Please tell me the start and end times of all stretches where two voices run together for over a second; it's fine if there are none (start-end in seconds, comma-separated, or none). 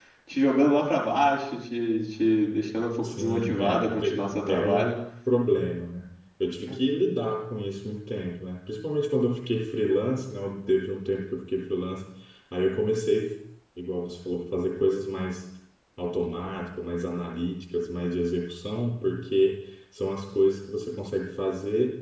3.0-4.9